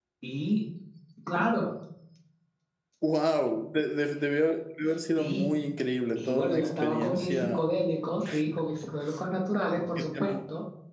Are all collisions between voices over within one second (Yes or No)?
No